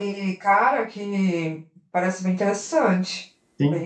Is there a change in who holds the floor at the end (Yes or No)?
Yes